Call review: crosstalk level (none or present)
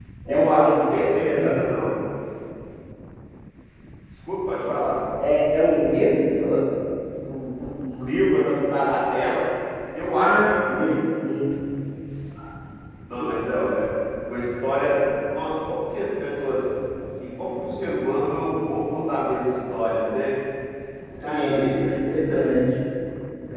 present